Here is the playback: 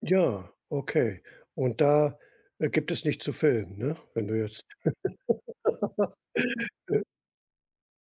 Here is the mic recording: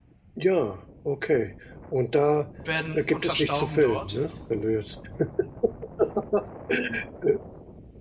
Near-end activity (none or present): present